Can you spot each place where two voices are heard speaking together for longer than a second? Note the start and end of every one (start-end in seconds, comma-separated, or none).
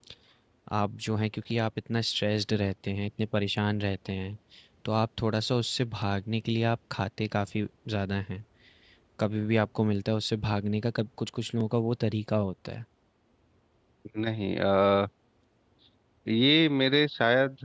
none